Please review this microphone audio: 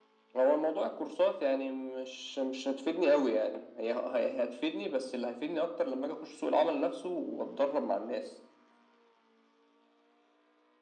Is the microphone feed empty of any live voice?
Yes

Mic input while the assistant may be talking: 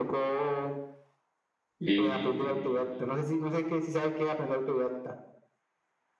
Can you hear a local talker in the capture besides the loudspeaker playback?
Yes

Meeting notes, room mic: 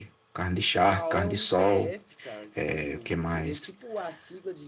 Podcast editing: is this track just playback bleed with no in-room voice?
No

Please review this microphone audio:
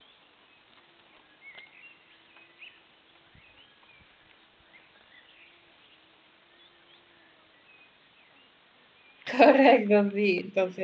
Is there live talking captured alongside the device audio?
Yes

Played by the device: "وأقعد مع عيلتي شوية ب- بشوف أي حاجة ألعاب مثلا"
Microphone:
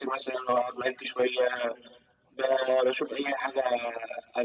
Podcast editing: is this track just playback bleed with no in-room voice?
Yes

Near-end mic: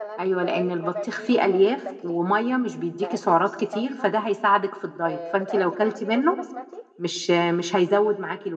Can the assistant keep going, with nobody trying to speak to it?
No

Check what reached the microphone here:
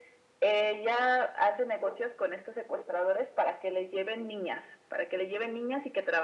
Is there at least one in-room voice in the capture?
No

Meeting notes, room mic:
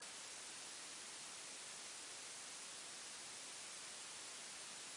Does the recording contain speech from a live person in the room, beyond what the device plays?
No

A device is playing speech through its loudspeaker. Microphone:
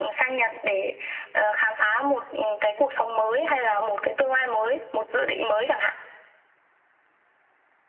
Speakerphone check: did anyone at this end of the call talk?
No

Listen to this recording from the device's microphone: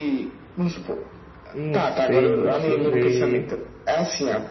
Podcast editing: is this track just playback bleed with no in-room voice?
No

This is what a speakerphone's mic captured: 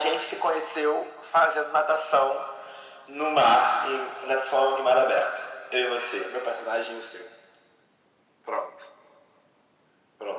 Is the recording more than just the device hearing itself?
No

